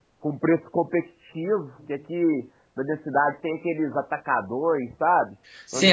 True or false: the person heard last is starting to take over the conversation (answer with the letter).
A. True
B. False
A